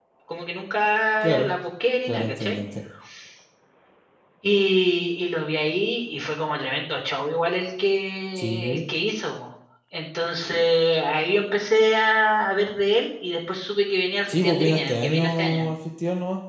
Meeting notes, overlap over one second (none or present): present